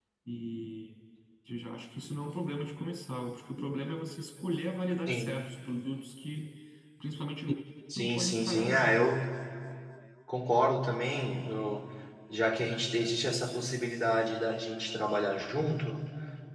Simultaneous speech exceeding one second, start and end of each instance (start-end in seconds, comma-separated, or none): 8.0-9.2